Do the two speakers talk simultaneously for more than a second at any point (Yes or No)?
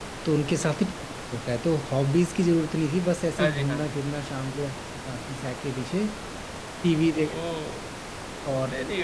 No